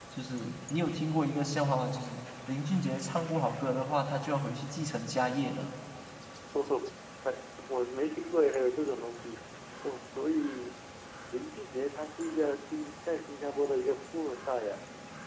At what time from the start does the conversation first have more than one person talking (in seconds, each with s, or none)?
none